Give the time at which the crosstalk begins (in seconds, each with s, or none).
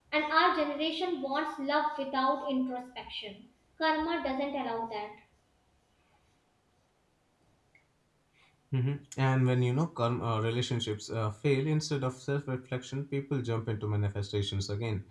none